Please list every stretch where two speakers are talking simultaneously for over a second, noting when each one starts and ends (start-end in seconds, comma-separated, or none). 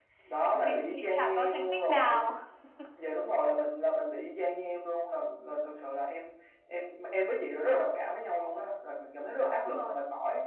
0.5-2.2